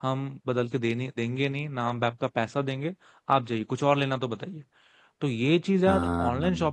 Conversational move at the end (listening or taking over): listening